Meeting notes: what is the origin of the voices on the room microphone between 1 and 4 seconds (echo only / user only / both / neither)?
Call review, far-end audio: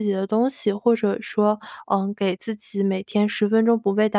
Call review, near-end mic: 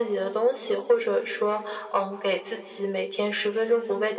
echo only